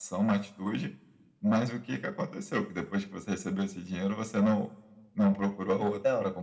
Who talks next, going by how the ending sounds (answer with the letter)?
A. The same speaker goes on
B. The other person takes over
B